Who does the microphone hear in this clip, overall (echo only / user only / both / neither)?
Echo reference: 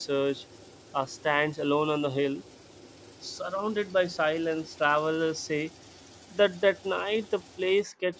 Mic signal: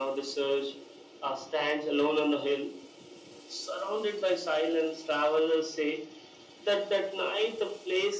echo only